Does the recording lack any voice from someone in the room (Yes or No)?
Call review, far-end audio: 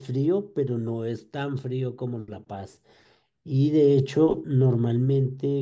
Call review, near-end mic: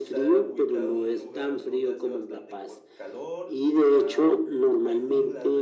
No